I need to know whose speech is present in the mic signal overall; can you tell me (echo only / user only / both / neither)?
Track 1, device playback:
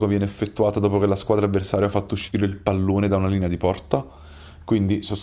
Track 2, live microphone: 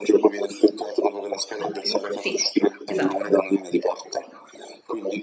both